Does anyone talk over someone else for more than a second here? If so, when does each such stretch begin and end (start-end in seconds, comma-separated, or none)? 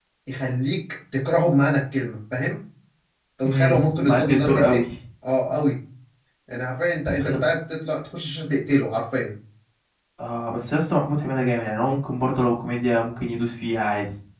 3.5-4.8